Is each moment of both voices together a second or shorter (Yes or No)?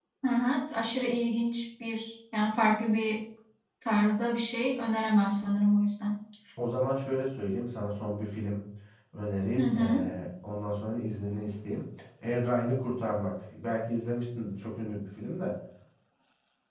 Yes